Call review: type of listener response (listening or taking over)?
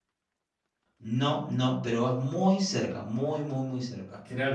taking over